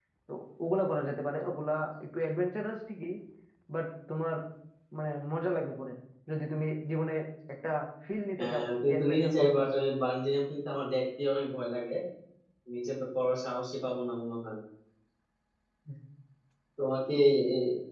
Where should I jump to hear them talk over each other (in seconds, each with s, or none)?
8.4 s